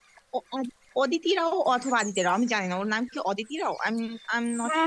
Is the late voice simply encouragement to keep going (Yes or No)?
No